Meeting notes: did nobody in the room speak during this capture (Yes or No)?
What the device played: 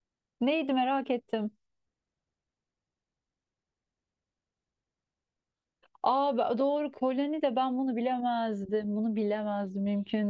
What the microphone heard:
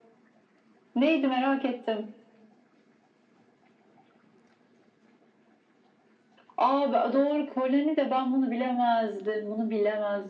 Yes